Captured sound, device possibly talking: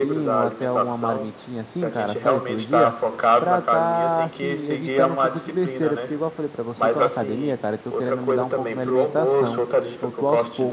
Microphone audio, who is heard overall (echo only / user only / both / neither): both